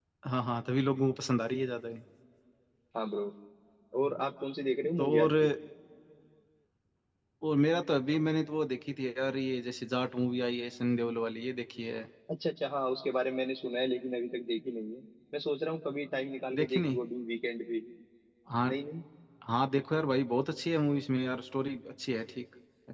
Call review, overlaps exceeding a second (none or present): none